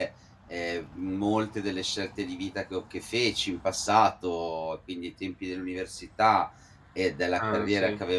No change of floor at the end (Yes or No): Yes